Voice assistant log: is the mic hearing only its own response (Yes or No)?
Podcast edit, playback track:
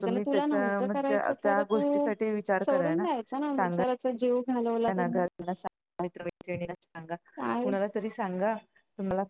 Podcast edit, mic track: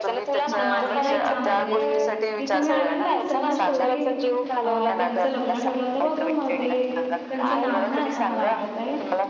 No